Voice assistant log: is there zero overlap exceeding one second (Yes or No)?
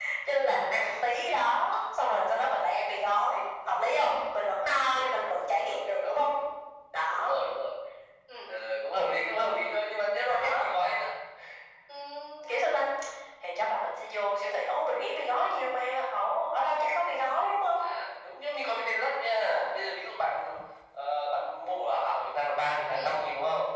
No